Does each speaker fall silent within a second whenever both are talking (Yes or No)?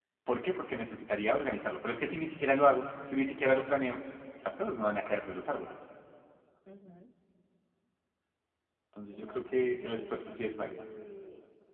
No